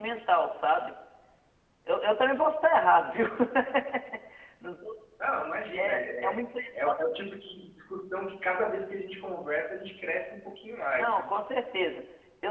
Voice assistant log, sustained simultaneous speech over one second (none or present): none